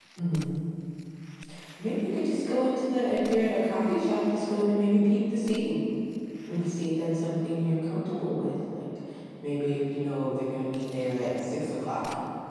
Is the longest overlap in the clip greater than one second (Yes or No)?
No